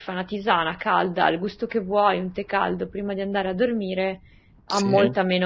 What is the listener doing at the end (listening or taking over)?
listening